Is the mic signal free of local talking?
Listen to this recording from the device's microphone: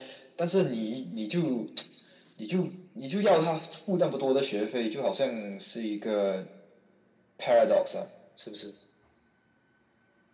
Yes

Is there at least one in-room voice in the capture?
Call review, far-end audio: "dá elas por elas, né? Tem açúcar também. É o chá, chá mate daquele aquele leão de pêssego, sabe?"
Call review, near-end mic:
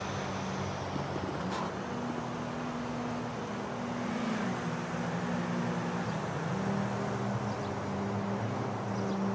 No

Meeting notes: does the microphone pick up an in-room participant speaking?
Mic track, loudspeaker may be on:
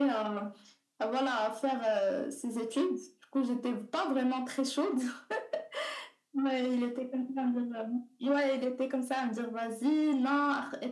No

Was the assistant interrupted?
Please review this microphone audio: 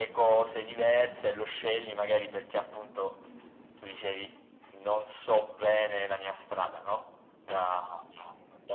No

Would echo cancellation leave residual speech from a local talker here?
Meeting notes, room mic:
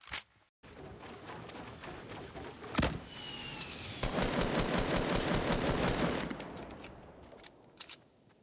No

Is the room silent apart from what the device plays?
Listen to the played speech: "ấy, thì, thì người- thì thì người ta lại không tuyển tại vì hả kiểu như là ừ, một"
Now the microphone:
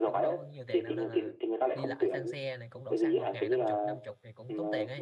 No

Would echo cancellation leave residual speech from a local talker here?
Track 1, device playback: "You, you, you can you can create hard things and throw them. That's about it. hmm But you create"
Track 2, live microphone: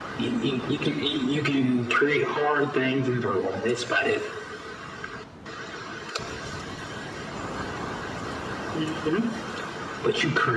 No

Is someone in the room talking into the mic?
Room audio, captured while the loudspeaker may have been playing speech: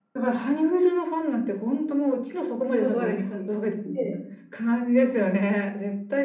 Yes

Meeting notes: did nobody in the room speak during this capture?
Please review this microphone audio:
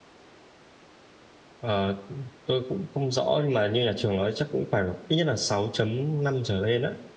No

